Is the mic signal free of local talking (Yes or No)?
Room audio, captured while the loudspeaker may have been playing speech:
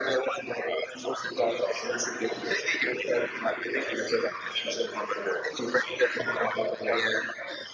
No